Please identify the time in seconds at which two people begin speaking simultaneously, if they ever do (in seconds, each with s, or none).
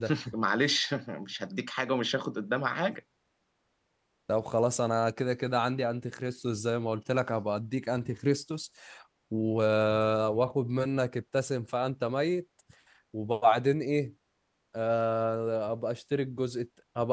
none